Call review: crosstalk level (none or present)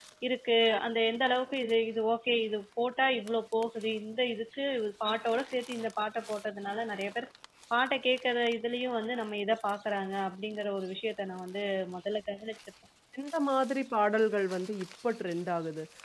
none